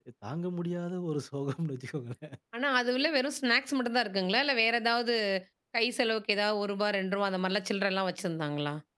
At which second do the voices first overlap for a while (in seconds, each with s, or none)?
none